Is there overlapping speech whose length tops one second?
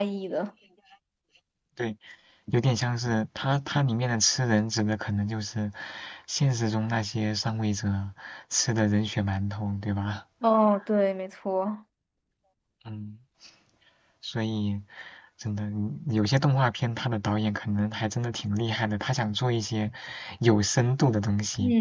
No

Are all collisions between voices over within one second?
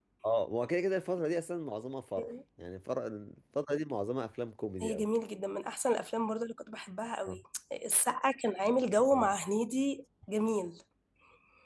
Yes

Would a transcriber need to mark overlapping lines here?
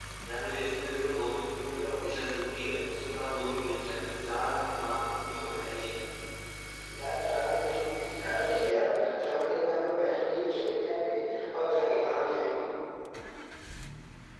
No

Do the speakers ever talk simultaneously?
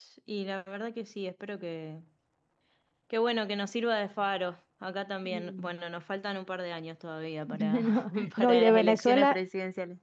Yes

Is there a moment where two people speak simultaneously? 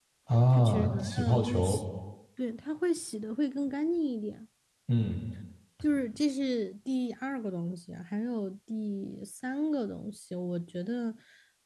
Yes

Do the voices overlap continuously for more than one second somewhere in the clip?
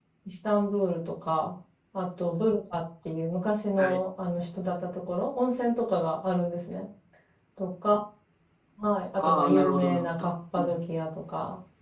Yes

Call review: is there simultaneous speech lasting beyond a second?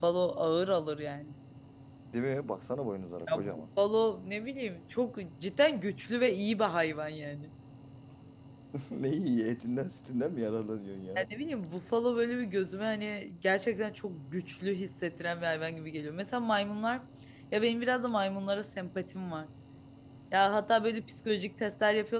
No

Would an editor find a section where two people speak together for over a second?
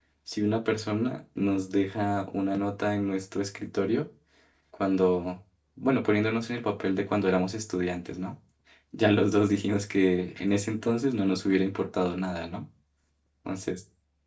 No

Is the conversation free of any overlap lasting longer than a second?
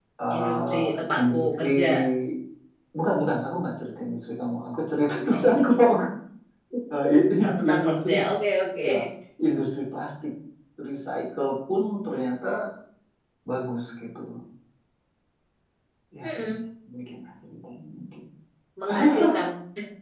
No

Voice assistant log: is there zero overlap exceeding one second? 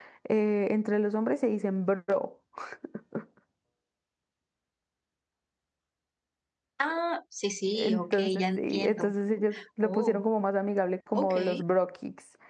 No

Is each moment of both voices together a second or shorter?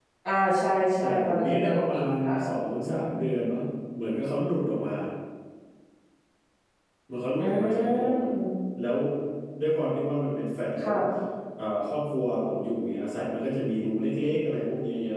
No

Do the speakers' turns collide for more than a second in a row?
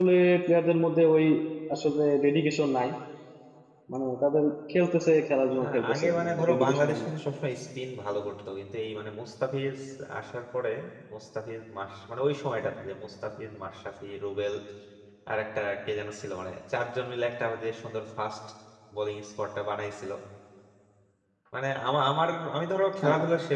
Yes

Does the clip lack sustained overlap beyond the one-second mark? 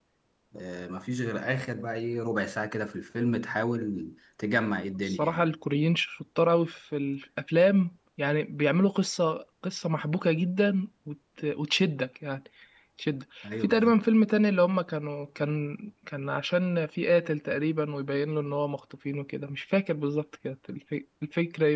Yes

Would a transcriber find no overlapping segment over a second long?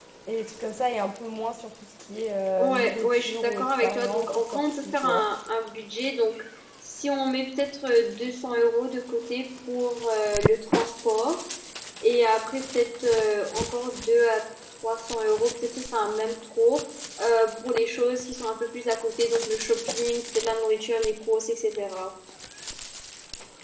No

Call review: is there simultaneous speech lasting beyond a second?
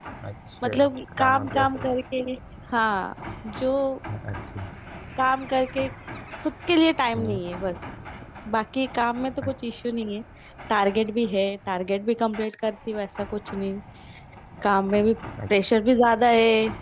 Yes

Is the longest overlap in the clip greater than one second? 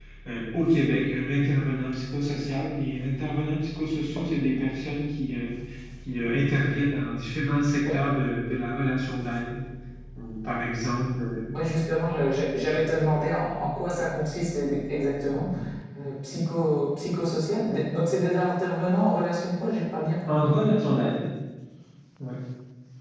No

